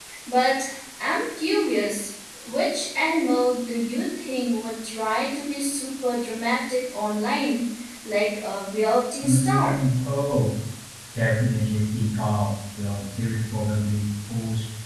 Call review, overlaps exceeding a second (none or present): none